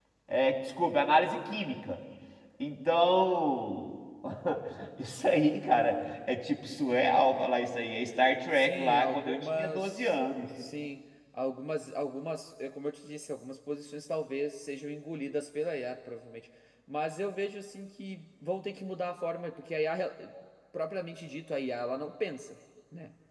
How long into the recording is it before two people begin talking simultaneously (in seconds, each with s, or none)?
8.5 s